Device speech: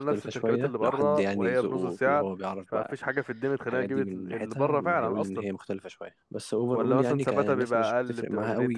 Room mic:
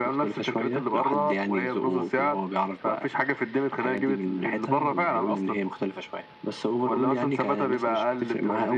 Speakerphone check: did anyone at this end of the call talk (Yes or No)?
No